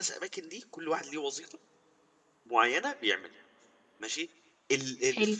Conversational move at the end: listening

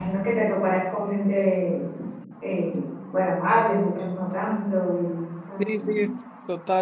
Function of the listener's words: taking over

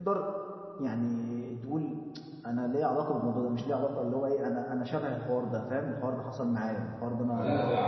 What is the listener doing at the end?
taking over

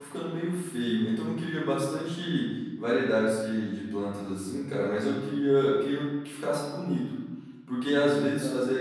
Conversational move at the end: listening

